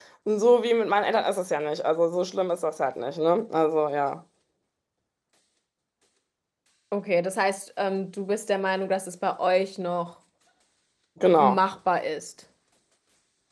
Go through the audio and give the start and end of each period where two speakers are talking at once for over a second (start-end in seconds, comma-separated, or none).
none